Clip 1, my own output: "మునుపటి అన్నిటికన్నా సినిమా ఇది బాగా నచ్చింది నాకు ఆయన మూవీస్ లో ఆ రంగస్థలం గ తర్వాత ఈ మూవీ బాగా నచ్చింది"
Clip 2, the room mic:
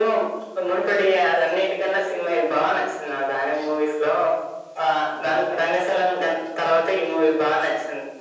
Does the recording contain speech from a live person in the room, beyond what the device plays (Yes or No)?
No